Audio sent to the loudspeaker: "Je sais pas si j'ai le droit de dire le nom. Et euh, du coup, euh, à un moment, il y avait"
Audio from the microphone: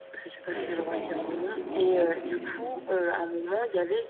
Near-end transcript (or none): Ben, c'est pas moi directement, là, c'est